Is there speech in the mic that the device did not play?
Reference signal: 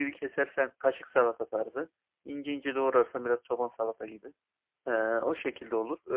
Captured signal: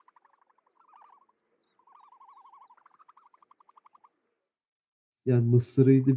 Yes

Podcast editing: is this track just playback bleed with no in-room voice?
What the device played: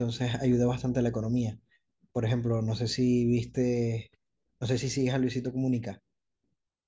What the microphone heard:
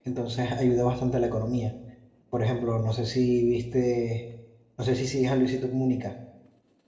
Yes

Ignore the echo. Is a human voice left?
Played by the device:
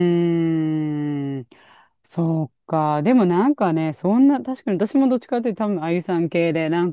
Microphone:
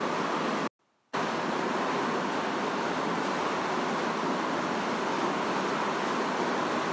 No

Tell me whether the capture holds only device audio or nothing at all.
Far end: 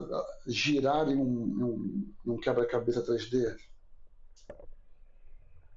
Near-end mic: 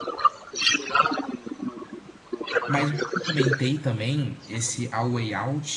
No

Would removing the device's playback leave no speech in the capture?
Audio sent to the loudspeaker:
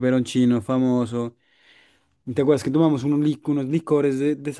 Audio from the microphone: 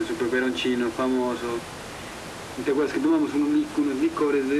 Yes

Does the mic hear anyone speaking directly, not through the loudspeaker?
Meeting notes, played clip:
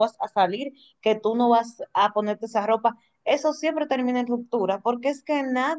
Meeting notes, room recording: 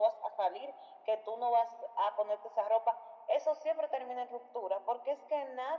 No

